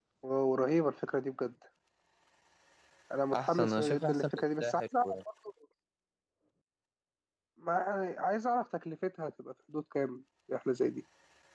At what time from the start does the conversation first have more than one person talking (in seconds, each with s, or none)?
3.3 s